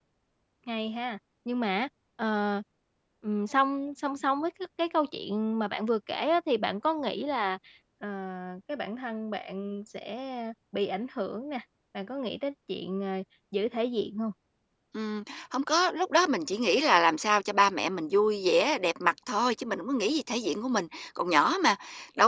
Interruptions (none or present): none